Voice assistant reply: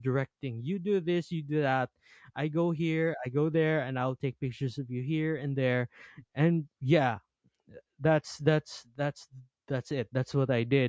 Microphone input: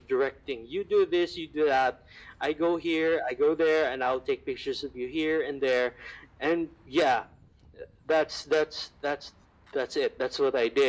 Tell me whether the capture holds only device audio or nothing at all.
Yes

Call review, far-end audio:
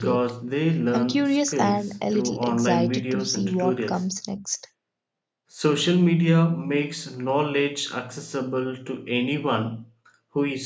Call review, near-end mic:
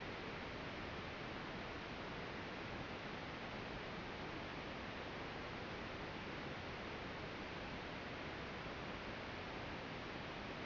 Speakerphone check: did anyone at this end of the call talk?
No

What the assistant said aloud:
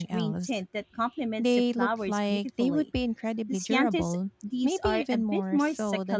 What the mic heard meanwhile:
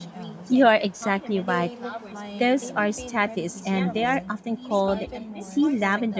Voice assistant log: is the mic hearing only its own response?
No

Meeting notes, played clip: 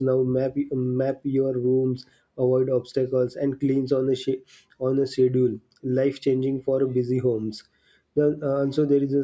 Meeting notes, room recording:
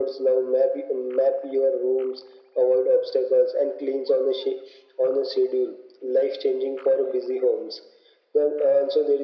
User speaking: No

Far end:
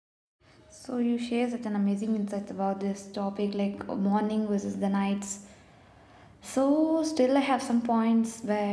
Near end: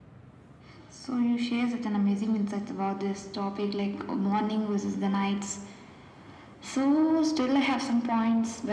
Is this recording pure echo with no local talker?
Yes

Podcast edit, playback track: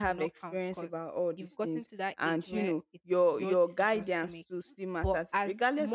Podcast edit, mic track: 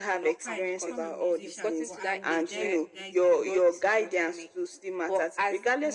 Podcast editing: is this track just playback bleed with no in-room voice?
No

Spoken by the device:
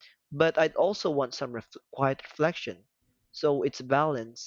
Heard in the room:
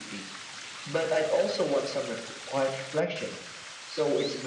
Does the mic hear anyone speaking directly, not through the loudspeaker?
No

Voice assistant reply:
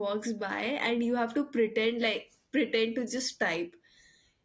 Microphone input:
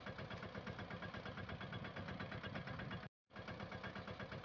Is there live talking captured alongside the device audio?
No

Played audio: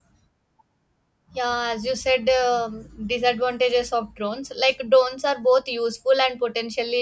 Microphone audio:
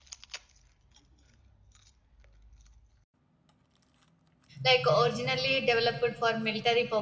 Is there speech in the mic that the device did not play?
Yes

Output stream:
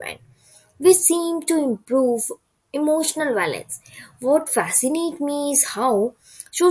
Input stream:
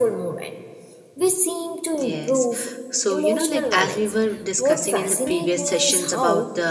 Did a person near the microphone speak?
Yes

